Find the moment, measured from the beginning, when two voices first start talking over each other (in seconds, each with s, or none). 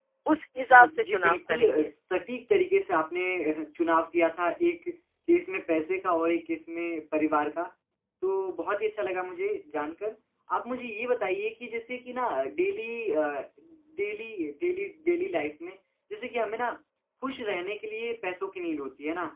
0.7 s